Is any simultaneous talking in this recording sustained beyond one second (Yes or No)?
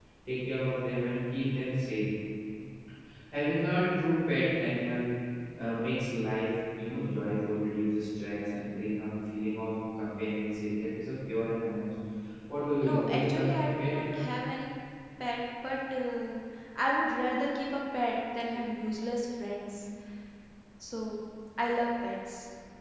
Yes